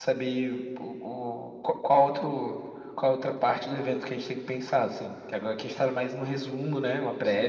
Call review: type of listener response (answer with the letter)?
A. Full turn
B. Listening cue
A